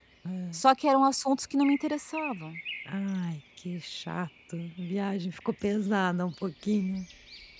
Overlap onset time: none

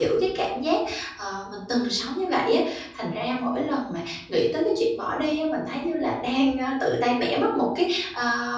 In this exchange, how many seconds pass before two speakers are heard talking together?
none

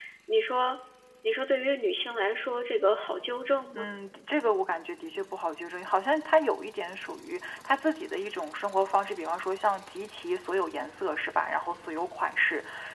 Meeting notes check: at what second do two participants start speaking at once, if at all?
none

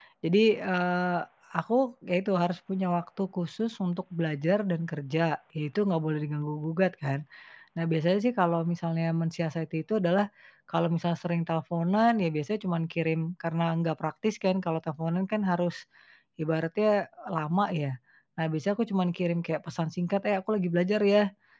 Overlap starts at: none

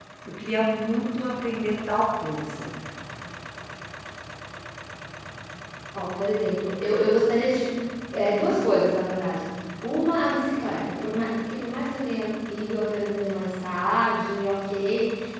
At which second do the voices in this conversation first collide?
none

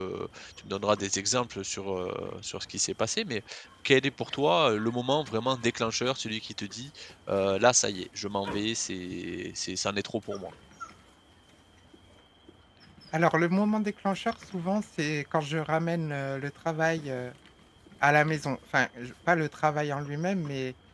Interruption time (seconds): none

